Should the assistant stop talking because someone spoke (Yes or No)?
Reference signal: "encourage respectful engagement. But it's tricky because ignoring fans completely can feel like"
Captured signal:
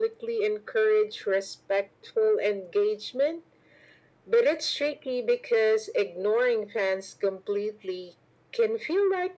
No